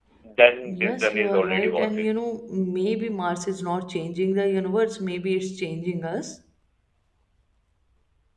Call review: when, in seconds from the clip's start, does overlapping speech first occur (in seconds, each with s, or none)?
0.6 s